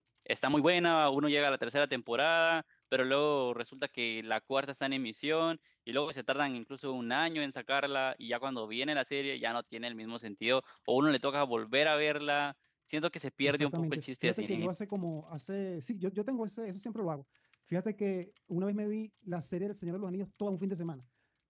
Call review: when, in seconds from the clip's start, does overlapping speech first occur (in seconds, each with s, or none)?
13.4 s